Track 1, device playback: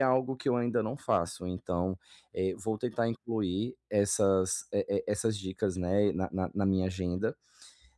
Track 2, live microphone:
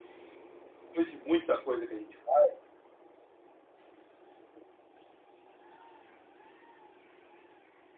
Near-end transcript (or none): depois de muita coisa que a gente faz,